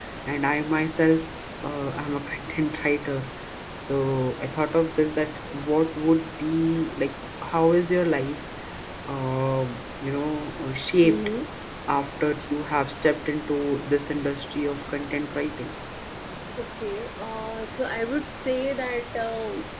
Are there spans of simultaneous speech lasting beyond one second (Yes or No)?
No